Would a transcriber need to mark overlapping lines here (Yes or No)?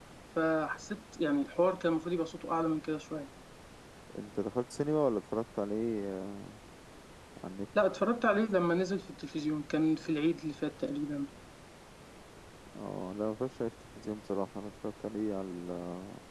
No